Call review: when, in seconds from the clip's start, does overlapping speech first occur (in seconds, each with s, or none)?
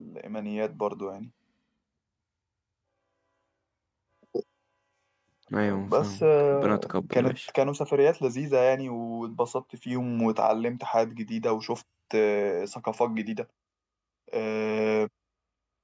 5.7 s